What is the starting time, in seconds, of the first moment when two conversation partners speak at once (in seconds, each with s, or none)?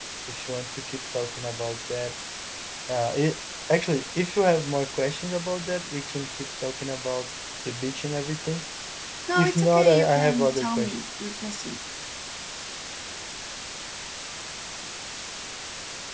9.4 s